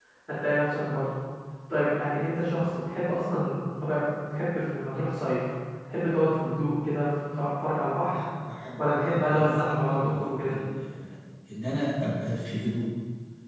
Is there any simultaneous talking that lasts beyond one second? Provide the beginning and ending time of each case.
8.8-10.5

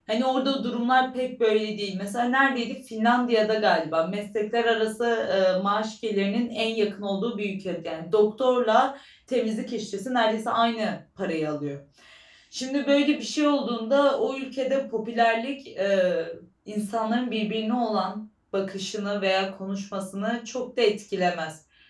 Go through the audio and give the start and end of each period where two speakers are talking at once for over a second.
none

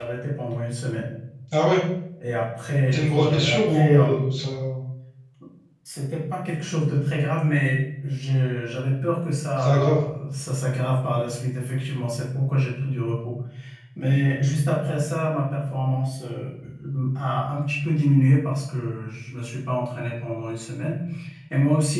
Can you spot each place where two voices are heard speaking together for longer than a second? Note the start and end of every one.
2.9-4.2

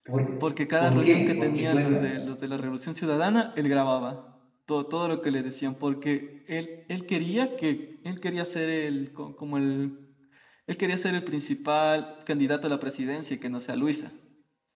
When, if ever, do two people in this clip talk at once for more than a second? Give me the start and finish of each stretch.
0.8-2.1

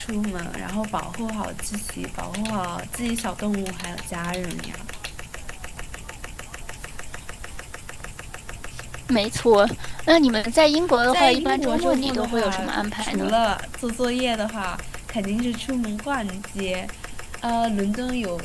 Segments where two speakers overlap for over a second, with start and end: 11.1-12.6

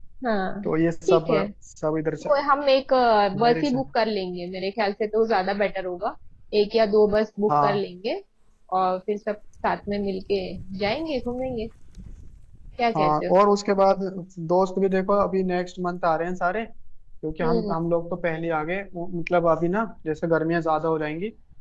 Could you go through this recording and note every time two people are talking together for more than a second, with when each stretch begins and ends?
none

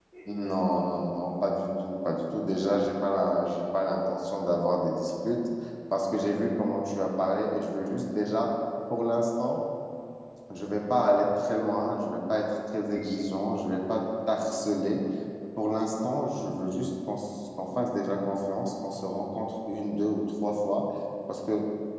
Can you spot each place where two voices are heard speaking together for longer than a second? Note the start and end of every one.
none

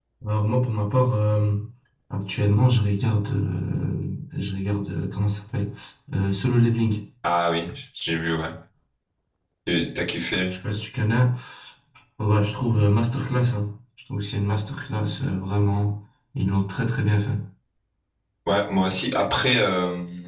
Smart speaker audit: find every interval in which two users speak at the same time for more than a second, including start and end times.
none

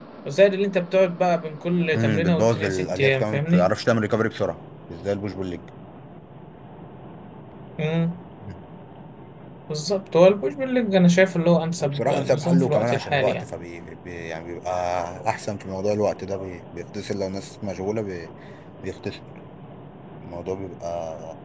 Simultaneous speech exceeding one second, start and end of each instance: 1.9-3.7, 11.8-13.4

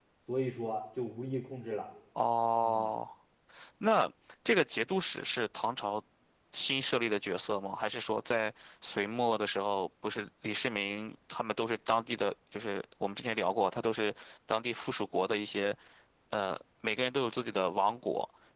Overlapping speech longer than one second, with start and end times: none

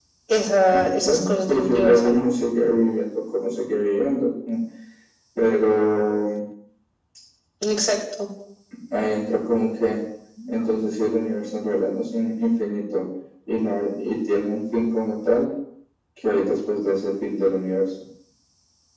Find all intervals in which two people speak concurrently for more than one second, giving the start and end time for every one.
1.0-2.3

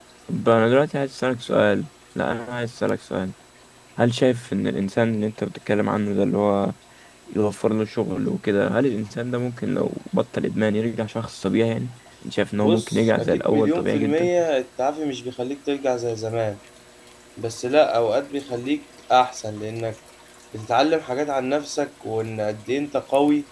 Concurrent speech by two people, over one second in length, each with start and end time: 12.6-14.3

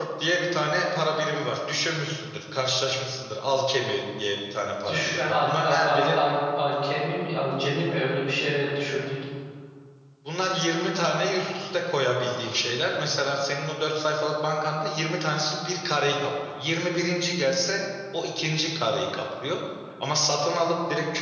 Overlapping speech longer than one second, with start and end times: 4.9-6.2

